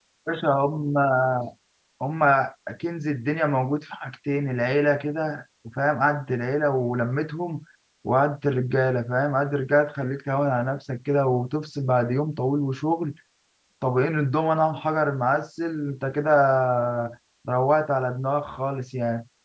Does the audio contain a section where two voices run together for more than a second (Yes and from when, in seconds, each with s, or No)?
No